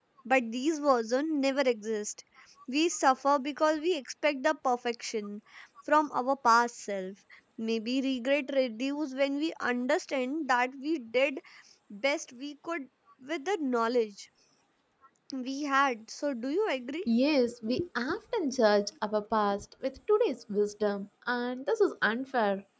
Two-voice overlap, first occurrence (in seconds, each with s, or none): none